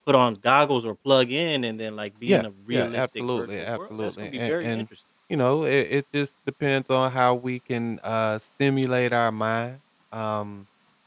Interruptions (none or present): present